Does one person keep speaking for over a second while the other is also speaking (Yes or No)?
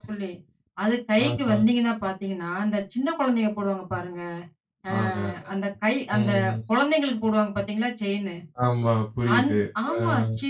No